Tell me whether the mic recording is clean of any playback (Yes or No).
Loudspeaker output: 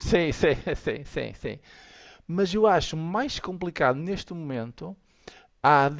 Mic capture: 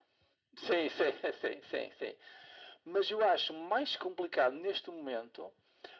No